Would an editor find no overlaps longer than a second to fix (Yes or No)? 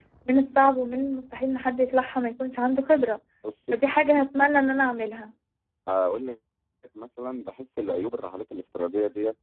Yes